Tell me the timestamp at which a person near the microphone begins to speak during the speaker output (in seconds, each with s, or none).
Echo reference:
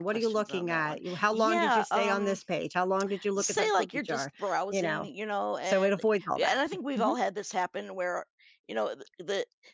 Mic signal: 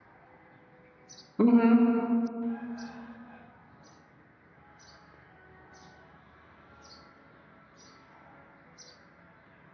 1.4 s